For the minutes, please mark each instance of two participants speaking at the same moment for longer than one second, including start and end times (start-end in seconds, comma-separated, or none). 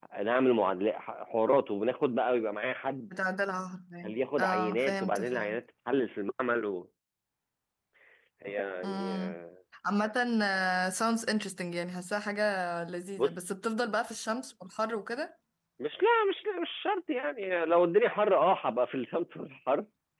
4.0-5.6